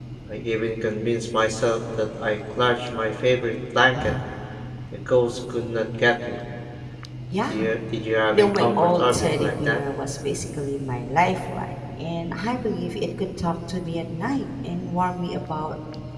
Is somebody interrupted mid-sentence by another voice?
Yes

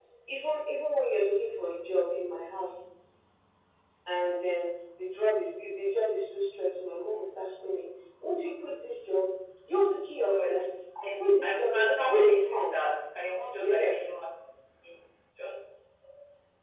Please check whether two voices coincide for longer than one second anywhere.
Yes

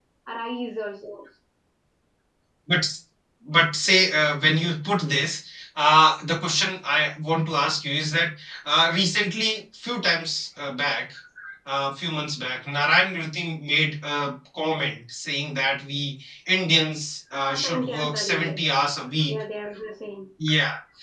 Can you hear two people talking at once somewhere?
Yes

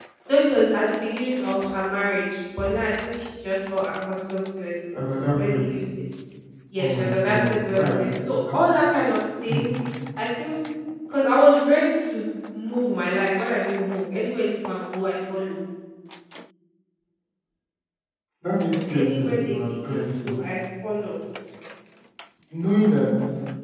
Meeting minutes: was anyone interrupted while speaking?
Yes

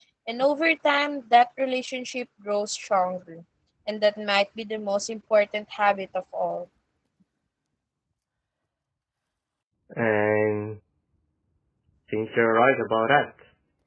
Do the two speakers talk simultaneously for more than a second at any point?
No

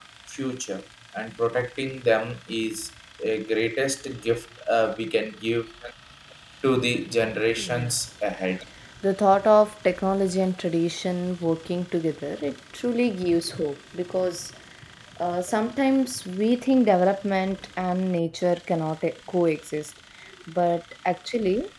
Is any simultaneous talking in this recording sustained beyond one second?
No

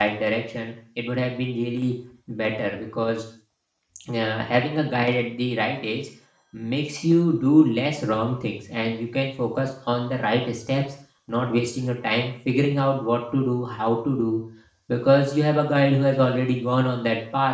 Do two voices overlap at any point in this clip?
No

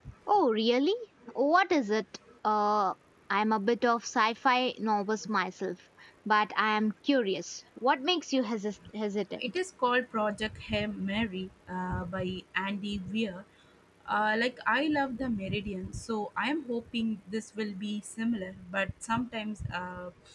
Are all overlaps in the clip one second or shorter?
Yes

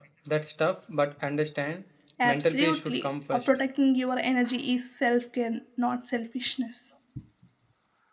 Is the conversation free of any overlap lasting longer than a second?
No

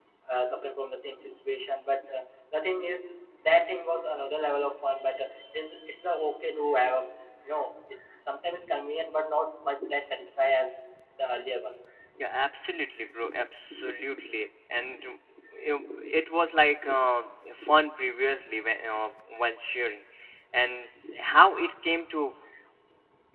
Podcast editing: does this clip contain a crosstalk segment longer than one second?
No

